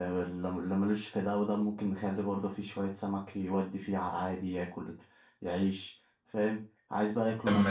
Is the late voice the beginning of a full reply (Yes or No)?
No